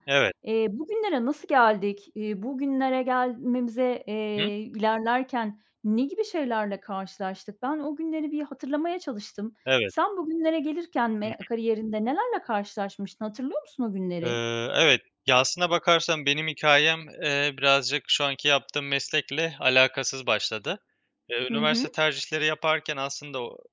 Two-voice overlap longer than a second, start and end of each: none

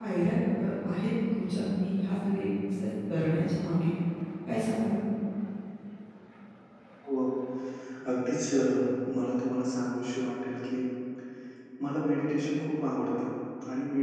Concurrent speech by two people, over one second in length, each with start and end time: none

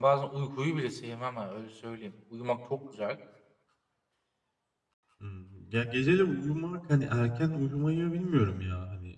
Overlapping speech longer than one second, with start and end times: none

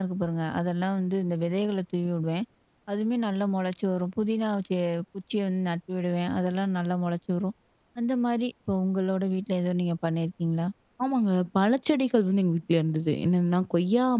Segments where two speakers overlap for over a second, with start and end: none

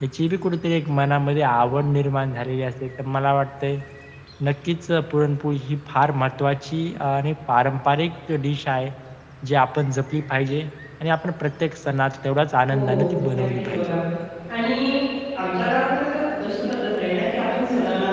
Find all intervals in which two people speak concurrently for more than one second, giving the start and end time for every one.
12.7-13.9

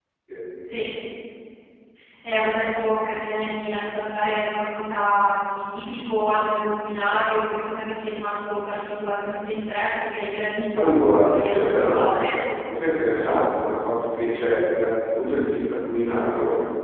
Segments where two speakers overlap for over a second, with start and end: 10.8-12.4

